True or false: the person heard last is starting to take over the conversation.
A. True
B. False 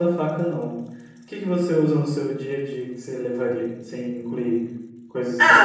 A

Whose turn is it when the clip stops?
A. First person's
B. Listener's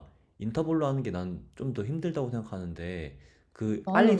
A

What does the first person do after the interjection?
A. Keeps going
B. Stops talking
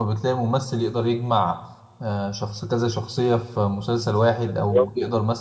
A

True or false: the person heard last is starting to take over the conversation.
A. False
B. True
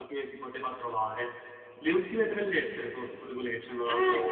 B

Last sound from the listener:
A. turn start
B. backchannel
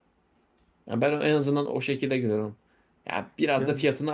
B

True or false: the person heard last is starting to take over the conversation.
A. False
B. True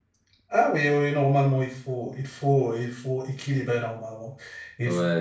B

